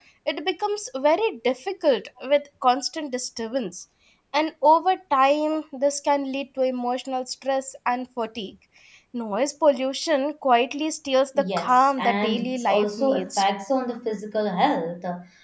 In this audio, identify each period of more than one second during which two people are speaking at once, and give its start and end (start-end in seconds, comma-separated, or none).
11.4-13.4